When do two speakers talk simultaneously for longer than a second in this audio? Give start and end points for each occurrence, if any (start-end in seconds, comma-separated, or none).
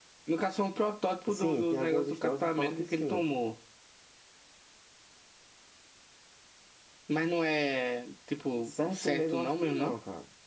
1.3-3.3, 8.6-9.9